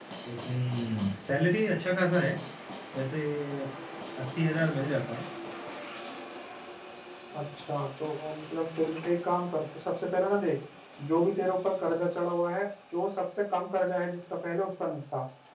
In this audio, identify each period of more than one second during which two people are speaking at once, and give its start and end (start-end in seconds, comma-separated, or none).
none